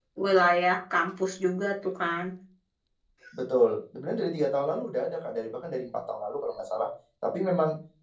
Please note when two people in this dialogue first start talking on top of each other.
none

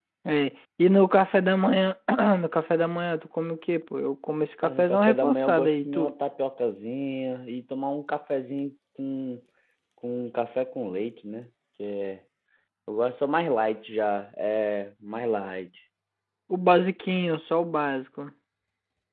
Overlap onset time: 4.6 s

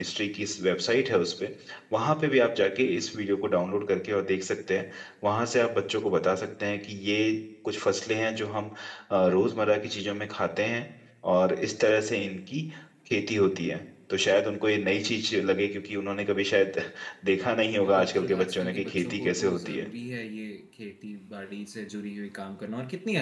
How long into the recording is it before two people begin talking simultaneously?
18.0 s

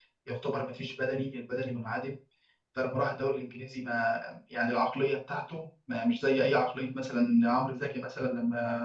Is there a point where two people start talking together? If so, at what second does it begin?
none

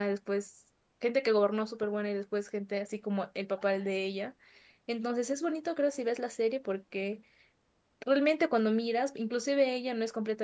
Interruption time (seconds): none

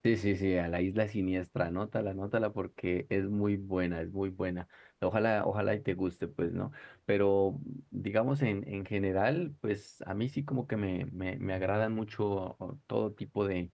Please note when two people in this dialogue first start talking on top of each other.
none

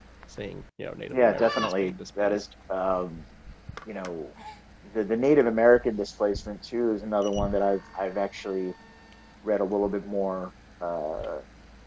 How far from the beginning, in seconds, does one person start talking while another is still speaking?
1.1 s

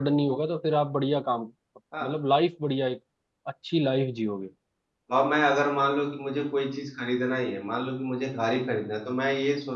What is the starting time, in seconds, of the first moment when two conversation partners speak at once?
none

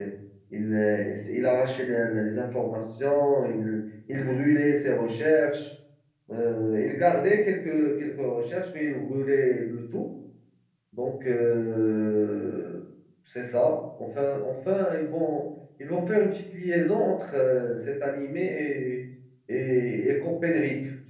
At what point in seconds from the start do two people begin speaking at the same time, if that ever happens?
none

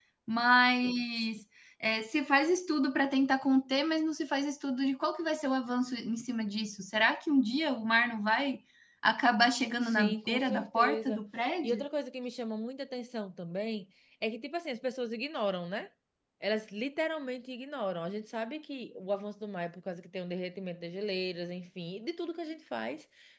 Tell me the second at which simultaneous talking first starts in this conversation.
9.8 s

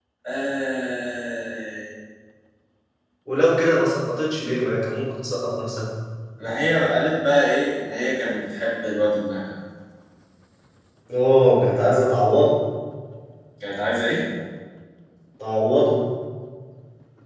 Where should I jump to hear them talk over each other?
none

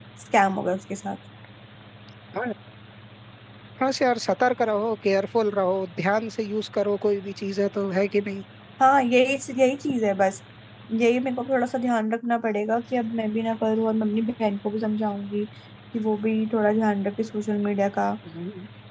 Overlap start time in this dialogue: none

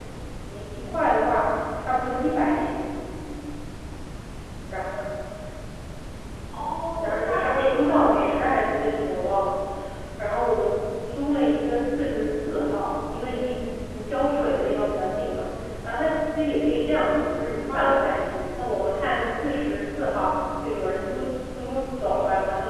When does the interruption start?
7.0 s

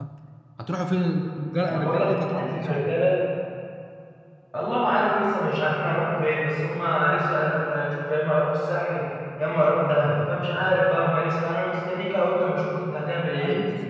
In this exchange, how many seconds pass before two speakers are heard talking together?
1.7 s

